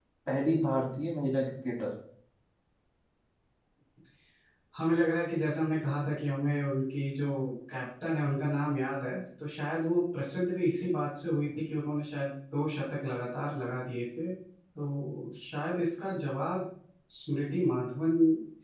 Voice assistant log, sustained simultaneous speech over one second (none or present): none